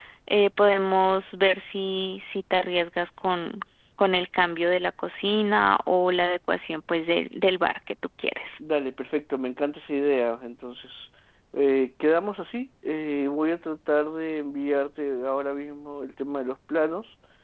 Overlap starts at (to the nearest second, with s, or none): none